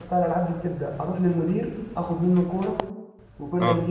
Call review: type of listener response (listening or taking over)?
listening